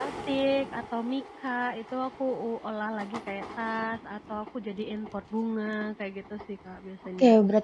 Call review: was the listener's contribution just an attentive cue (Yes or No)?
No